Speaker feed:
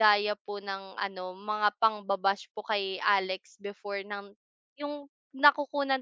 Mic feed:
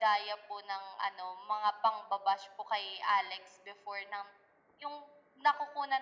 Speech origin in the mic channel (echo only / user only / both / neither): echo only